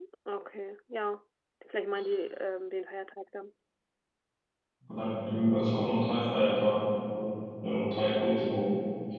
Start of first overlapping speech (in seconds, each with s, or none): none